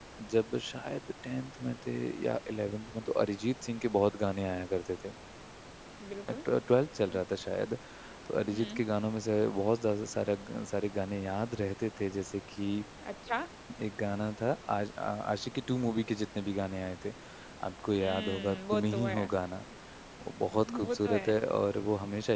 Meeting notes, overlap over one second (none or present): present